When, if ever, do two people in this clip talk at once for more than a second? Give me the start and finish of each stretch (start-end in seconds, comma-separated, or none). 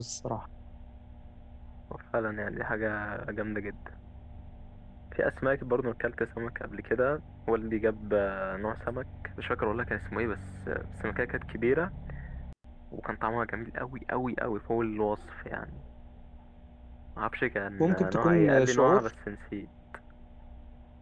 17.8-19.1